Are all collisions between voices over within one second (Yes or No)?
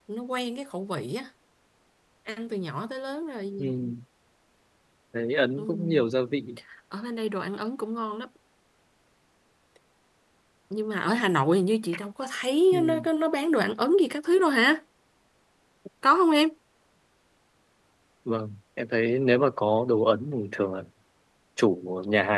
Yes